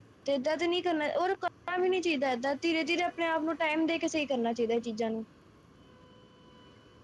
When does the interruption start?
none

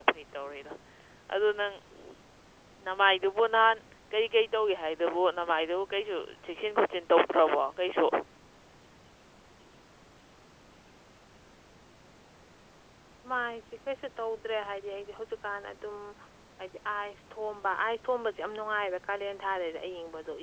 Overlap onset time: none

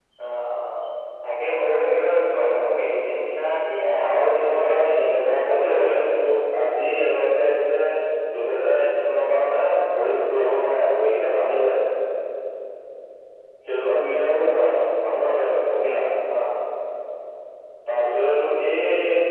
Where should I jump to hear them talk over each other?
4 s

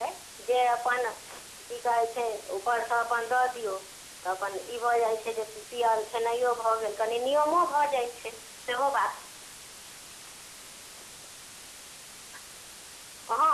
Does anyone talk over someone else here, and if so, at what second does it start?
none

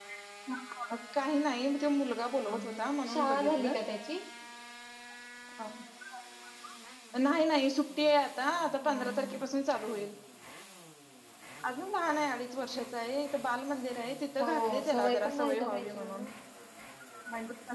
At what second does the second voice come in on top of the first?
2 s

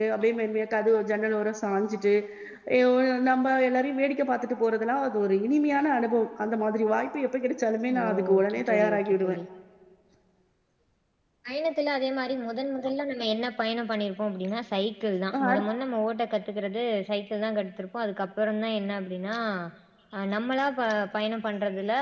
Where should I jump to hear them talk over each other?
8 s

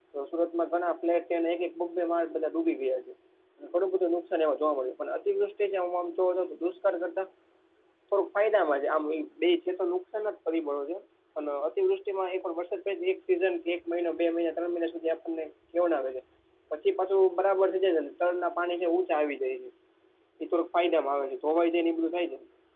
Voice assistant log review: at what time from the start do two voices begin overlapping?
none

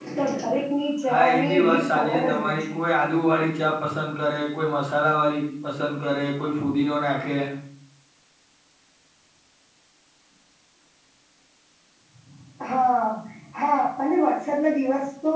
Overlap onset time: 1 s

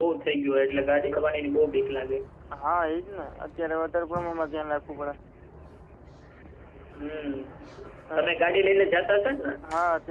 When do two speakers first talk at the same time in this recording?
none

